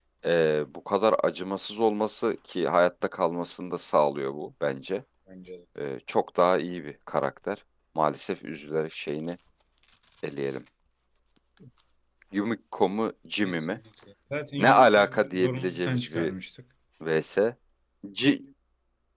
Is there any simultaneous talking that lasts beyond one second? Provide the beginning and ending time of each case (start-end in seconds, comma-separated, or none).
14.6-16.3